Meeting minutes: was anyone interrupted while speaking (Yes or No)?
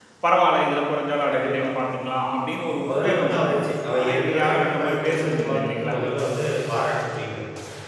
Yes